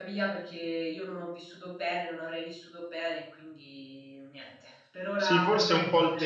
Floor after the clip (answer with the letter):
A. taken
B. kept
A